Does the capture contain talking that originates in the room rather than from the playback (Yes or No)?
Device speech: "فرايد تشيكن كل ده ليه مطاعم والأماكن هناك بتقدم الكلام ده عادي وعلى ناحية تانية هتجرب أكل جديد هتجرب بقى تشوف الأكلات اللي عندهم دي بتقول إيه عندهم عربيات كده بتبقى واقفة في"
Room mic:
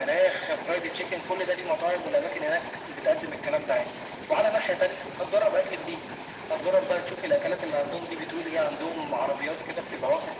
No